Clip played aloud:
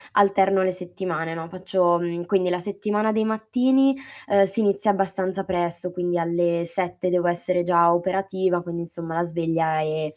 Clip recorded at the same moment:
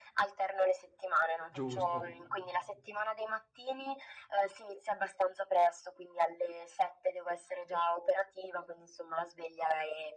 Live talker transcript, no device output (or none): Giusto.